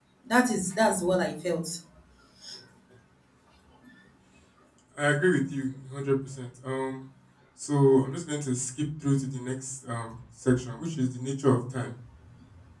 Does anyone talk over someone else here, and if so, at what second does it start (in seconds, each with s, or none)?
none